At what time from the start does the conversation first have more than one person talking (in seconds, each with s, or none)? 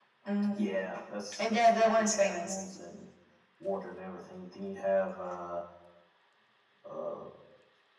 1.4 s